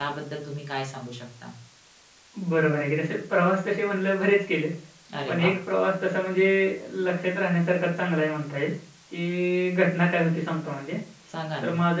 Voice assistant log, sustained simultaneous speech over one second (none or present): none